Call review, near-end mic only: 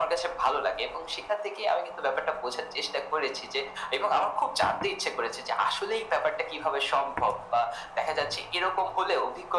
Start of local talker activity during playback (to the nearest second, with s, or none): none